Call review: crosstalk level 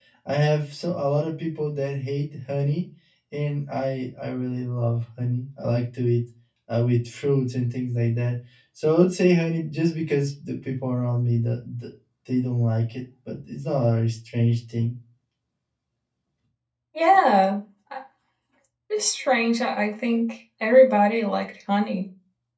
none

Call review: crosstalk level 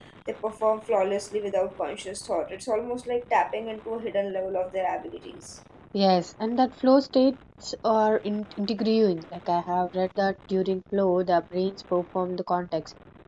none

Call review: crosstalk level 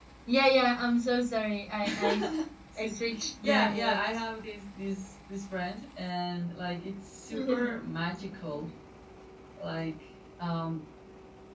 present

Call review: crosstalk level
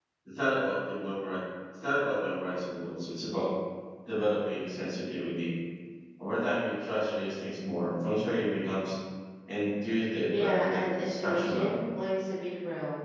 present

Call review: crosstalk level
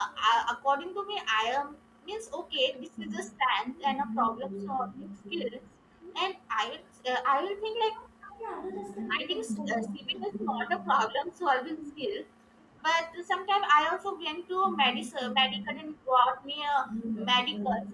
present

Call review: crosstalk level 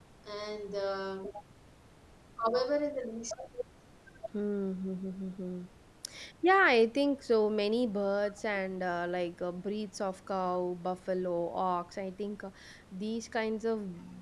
none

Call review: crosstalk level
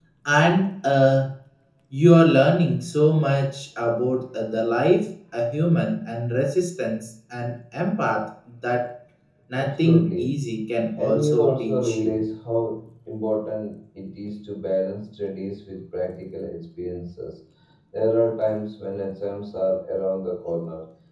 present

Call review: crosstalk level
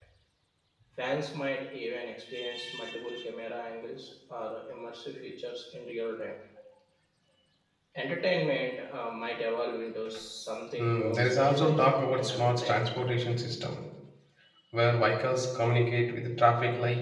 present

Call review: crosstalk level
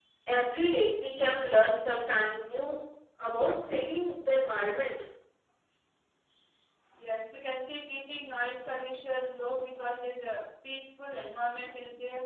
none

